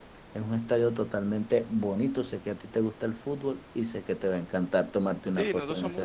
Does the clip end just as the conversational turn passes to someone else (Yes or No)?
Yes